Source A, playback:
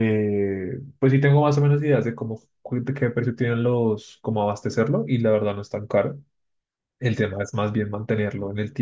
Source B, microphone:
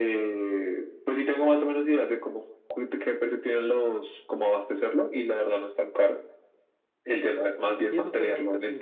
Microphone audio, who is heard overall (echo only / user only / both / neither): both